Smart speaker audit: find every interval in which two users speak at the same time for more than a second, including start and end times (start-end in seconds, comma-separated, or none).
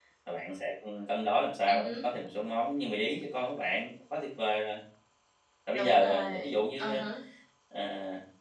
5.8-7.0